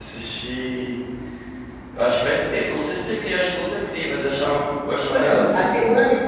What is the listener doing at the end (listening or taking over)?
taking over